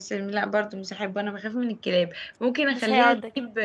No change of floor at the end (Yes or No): Yes